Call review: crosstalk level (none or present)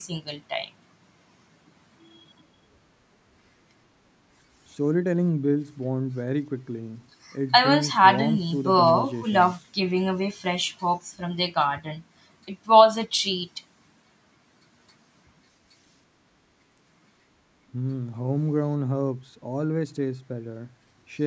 present